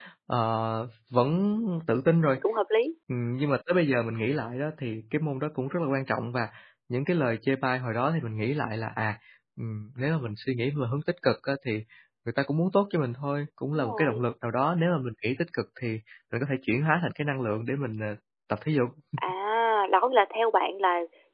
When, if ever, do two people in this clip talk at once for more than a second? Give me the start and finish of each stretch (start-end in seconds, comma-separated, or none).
none